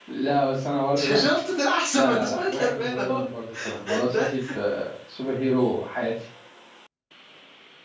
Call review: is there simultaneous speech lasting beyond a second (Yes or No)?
Yes